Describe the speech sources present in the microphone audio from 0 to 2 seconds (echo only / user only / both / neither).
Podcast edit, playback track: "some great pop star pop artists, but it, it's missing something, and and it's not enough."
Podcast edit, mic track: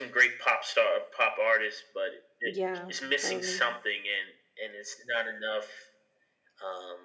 echo only